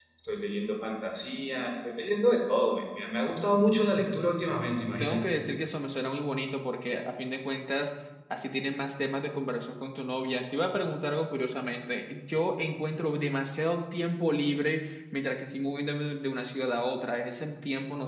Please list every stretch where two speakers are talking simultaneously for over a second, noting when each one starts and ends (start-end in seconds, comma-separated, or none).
none